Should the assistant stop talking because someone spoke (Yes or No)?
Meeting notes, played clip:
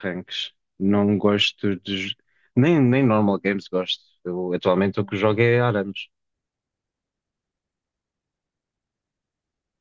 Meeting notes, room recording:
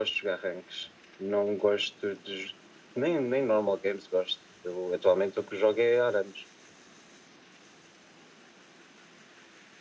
No